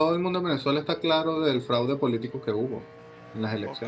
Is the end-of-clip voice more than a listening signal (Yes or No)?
Yes